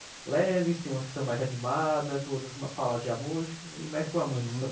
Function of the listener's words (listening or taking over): taking over